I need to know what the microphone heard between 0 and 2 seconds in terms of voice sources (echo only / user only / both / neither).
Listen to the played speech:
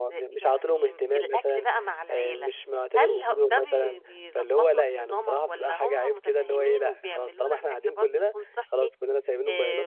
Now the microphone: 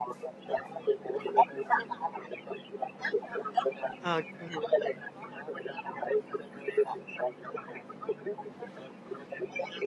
echo only